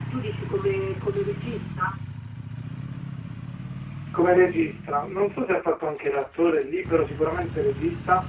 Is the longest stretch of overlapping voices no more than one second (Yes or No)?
Yes